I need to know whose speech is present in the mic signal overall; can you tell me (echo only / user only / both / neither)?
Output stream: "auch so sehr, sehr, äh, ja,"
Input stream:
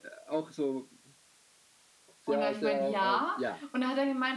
both